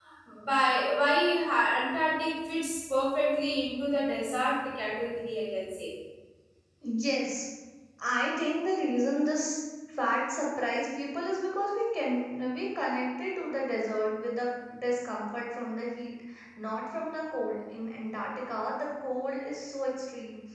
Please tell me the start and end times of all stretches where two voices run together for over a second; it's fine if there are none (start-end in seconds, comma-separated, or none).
none